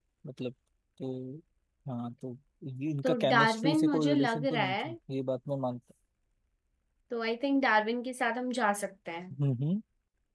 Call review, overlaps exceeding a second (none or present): present